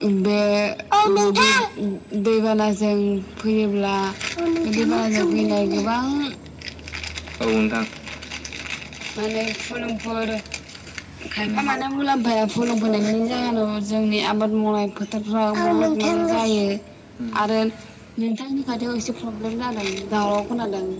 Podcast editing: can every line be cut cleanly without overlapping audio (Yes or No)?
No